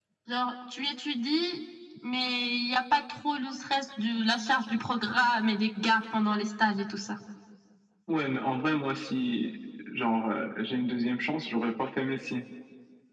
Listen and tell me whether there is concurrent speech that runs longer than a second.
No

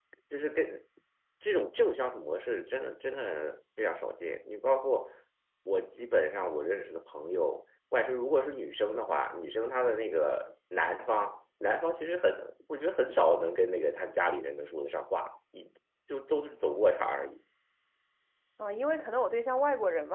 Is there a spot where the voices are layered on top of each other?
No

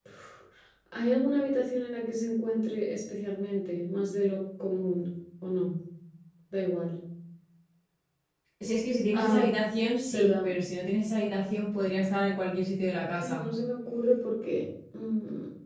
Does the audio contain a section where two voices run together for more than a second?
No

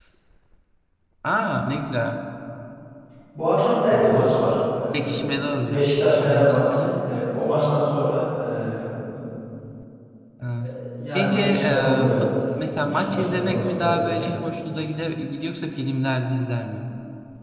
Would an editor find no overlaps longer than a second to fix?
No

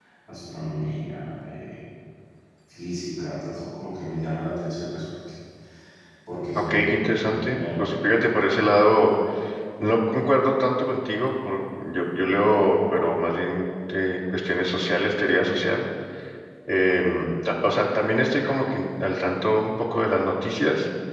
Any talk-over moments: Yes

